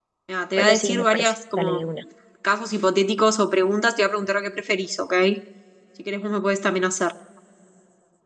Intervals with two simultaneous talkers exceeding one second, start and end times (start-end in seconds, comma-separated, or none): 0.6-1.8